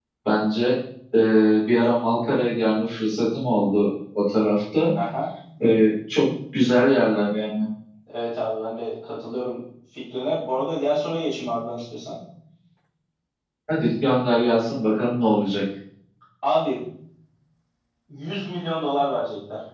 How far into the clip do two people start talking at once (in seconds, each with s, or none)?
none